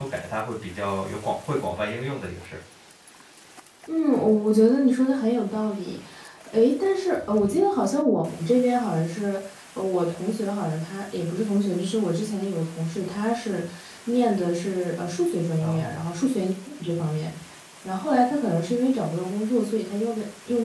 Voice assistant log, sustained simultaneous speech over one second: none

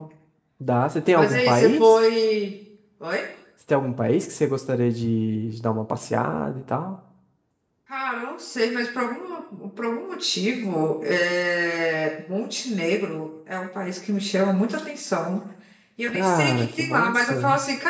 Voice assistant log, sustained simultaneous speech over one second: present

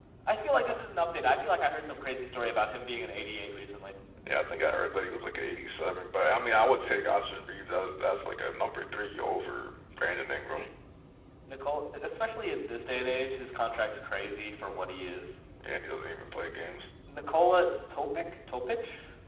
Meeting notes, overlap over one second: none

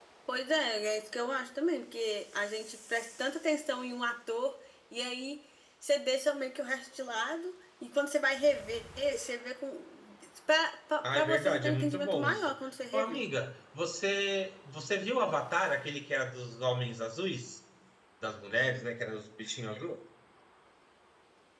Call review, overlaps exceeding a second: present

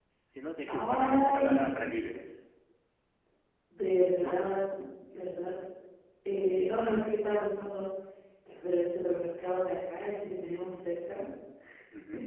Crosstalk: present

